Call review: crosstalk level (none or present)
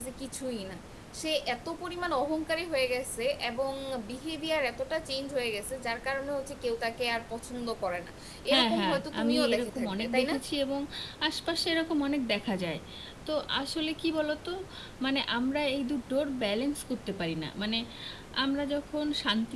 present